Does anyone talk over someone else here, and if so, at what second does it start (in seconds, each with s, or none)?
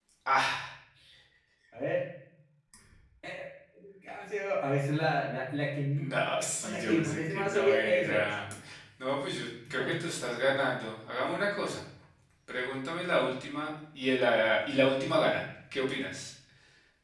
5.9 s